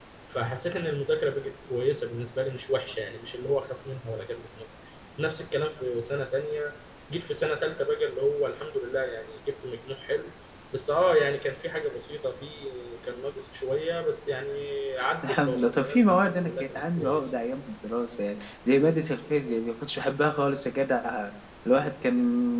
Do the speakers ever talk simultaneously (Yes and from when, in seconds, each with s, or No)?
Yes, from 15.2 s